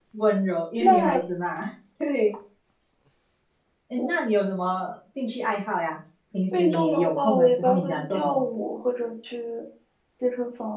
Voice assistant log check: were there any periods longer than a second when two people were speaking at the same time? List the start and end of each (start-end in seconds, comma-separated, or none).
6.5-8.4